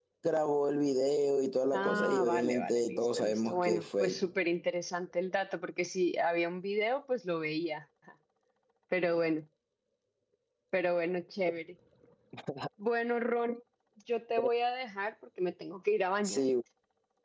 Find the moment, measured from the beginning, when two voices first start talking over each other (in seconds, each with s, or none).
1.7 s